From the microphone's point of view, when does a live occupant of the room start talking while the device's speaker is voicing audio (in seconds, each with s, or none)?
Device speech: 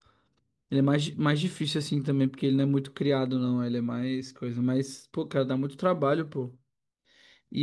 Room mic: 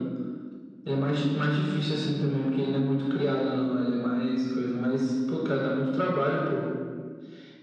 none